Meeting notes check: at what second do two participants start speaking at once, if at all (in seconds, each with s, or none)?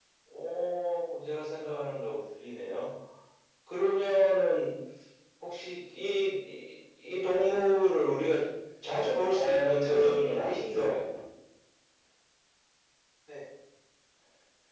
9.3 s